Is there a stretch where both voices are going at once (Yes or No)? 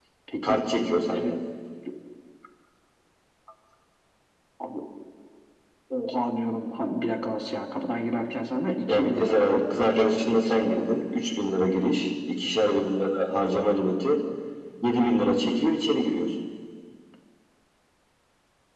Yes